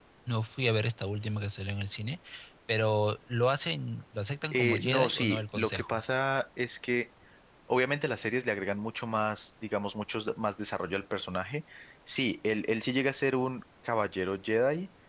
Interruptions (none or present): present